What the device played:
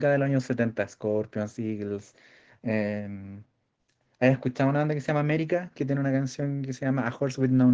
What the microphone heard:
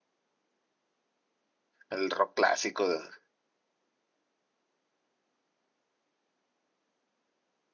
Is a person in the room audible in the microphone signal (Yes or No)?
Yes